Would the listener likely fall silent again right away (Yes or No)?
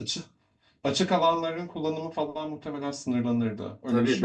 No